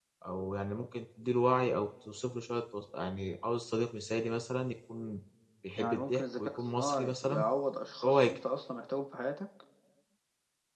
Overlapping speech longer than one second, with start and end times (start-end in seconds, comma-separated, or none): 5.8-7.4